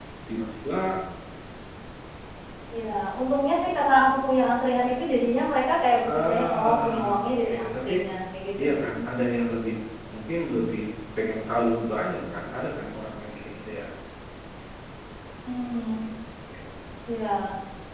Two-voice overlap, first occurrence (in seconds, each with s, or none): 6.1 s